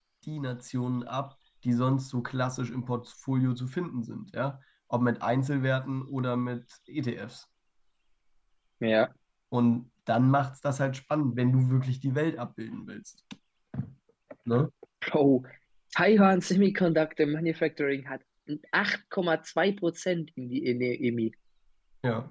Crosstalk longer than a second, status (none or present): none